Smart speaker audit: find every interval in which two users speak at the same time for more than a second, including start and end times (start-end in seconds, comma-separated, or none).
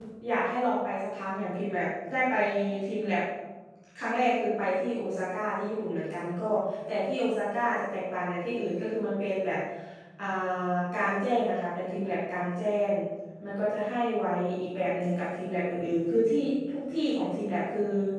none